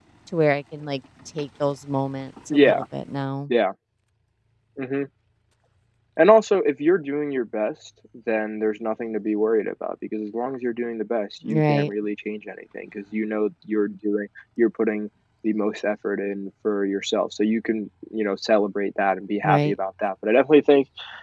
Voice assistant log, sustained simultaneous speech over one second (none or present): none